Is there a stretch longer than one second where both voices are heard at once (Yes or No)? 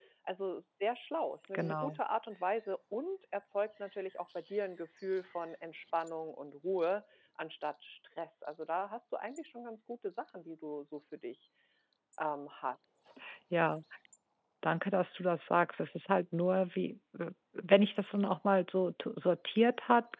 No